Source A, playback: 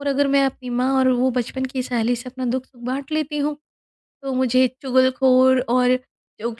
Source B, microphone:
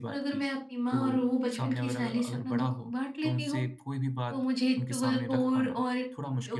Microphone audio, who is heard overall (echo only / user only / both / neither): both